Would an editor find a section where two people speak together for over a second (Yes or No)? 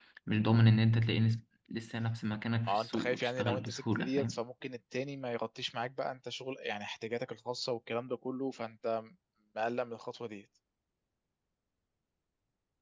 Yes